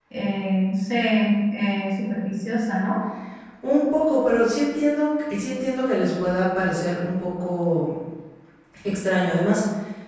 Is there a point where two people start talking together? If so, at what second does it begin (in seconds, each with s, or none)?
none